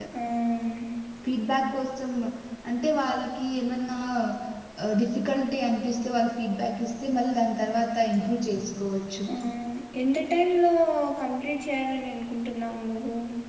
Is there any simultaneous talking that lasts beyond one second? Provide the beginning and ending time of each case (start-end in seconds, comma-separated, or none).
none